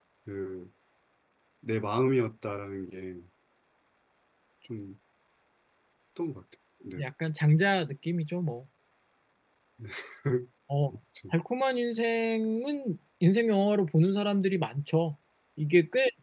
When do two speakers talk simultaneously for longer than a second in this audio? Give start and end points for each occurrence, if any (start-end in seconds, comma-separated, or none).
none